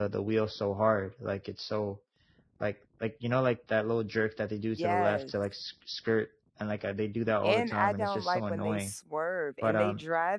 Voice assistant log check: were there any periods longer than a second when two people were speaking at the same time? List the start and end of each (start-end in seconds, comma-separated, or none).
7.4-8.9